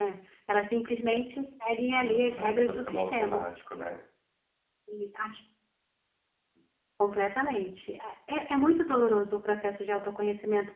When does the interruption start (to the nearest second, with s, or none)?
2 s